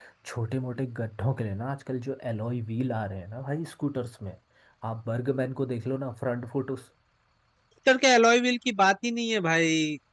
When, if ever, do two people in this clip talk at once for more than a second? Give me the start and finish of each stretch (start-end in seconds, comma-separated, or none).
none